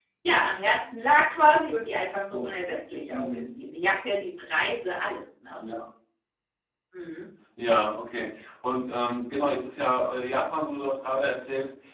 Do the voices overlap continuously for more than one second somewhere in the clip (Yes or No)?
No